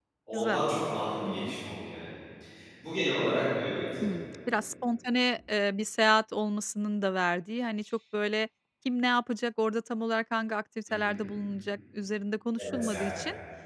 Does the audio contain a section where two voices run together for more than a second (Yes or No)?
No